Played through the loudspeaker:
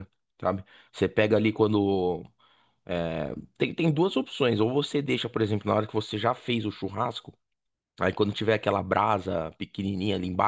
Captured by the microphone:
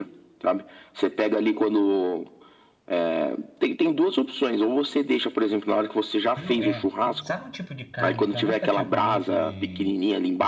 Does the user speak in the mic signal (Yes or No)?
Yes